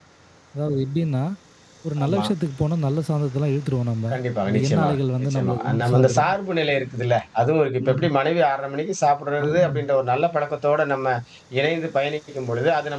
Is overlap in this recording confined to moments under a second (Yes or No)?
No